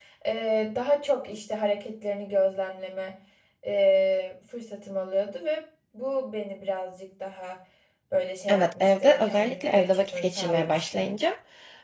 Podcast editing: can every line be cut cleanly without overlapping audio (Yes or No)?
No